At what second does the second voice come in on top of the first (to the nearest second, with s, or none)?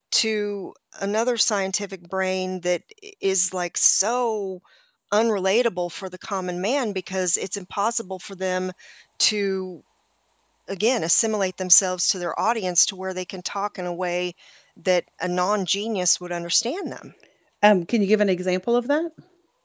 none